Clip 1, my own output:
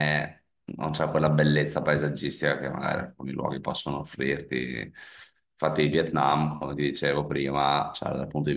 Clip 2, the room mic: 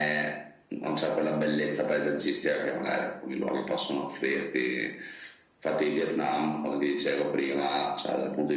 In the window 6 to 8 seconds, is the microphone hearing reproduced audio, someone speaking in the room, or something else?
echo only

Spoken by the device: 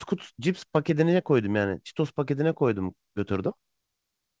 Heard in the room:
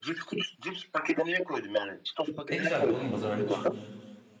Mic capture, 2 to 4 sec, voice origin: both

